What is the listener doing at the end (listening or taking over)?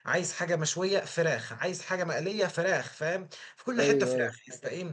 listening